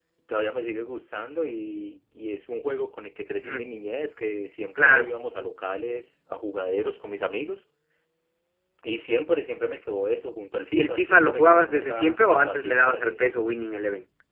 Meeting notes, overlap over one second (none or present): present